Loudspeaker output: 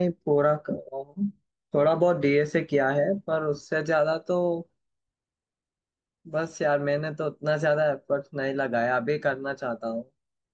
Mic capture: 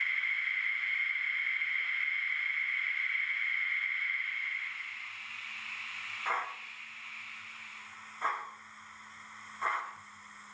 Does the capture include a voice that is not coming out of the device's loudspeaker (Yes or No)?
No